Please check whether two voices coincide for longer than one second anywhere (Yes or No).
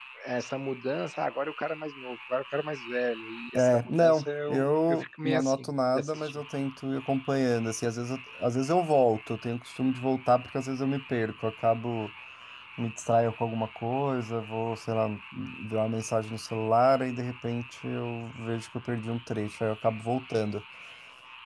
Yes